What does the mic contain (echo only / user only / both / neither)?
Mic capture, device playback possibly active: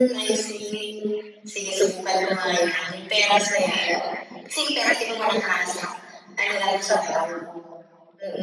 echo only